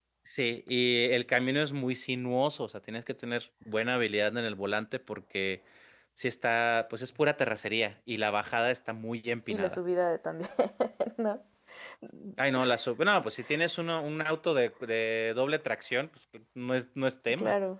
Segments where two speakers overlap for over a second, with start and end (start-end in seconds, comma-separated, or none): none